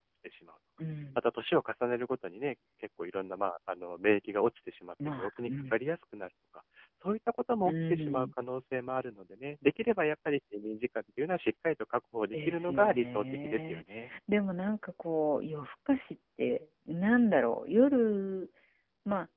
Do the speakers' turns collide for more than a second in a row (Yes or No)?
Yes